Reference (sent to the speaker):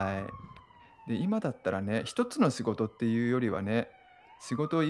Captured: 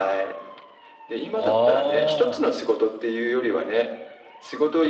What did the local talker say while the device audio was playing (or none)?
ああ。